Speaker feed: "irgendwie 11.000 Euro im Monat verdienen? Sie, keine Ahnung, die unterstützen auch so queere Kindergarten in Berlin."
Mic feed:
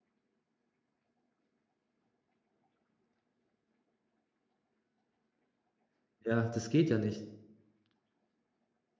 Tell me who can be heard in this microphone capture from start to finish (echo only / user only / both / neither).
user only